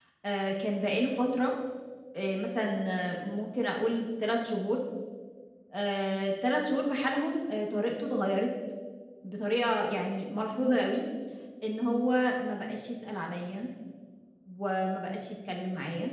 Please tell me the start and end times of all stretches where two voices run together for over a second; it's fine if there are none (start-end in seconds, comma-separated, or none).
none